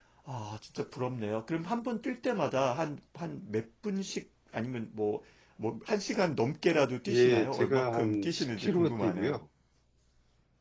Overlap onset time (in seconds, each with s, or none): 7.1 s